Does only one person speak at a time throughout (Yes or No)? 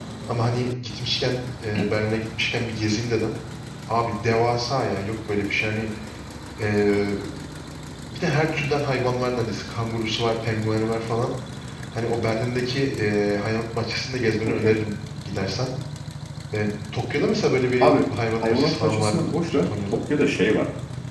No